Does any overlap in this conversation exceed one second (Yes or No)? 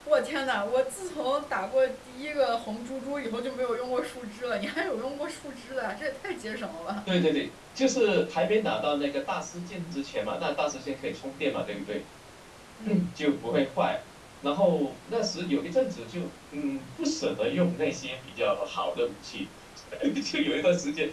No